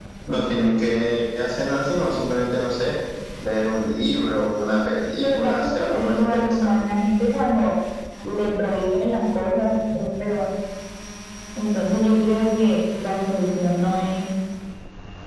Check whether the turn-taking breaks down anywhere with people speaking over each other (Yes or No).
Yes